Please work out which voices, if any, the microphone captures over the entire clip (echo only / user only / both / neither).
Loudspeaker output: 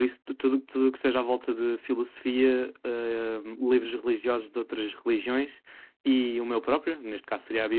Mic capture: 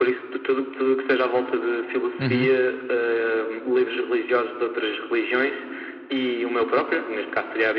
both